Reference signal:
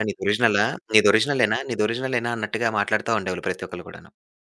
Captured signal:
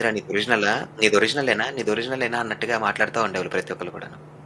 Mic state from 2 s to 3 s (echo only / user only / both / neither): echo only